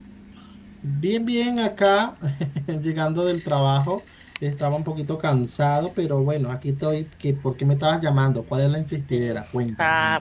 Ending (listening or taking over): taking over